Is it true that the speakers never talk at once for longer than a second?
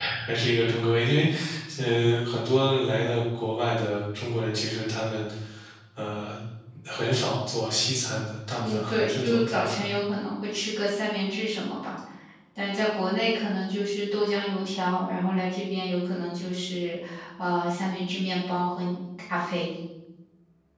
No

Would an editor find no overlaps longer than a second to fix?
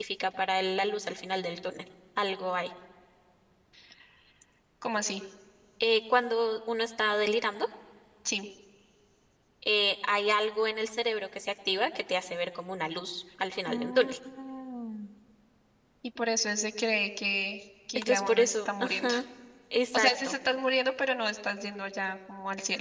No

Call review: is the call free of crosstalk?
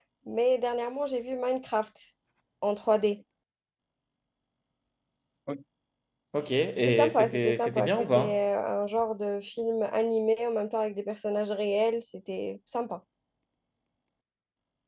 No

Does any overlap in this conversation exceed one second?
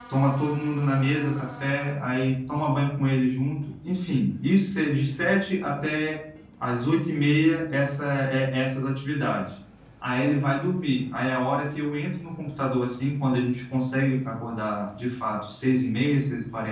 No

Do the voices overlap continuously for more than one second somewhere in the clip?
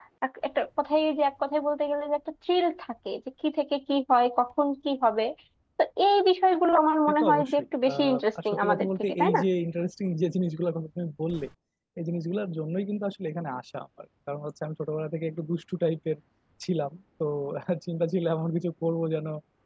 Yes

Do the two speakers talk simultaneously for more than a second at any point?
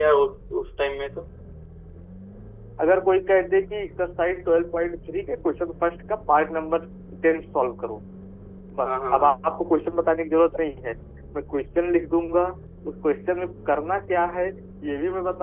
No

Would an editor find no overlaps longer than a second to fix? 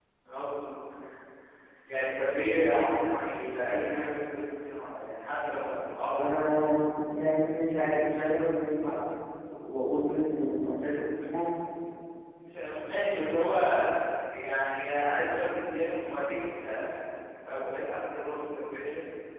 Yes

